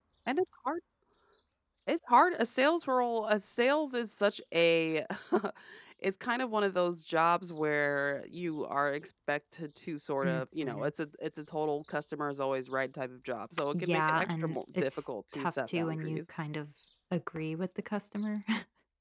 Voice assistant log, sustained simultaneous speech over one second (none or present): present